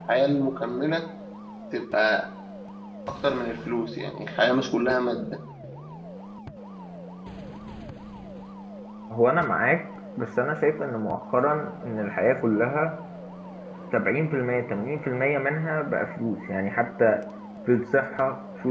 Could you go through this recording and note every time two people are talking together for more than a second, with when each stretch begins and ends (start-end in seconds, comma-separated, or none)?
none